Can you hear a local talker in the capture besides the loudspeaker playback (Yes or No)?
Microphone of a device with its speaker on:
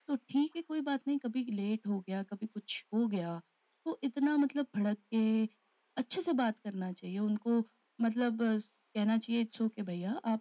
No